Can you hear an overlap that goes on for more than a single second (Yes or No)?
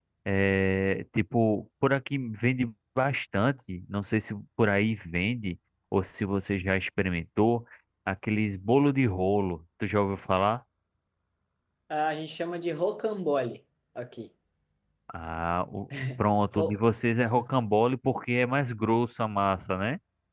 No